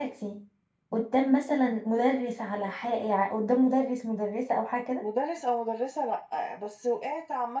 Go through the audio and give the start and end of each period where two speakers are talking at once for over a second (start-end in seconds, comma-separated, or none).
none